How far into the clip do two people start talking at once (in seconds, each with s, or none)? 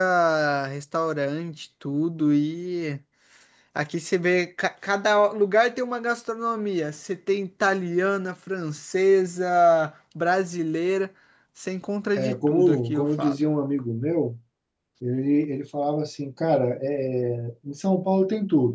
12.2 s